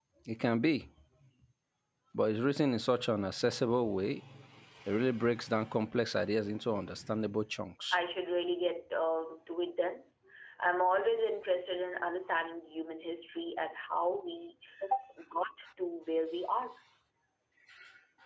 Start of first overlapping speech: none

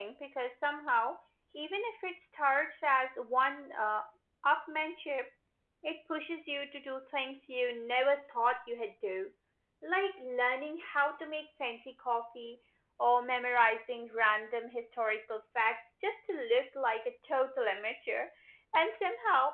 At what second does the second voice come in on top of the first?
none

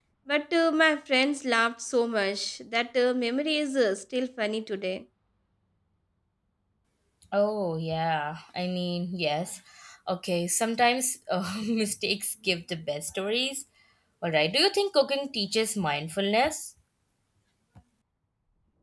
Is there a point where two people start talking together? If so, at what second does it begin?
none

